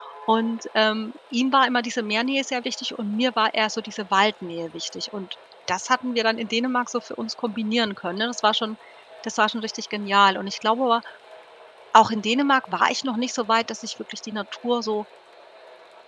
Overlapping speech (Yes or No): No